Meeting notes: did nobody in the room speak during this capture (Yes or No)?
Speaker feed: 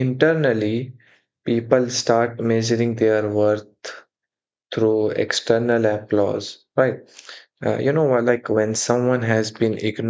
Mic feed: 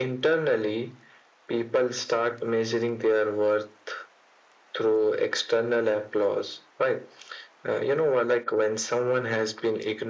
Yes